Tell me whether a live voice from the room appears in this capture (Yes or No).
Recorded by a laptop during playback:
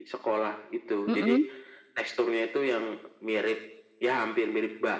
Yes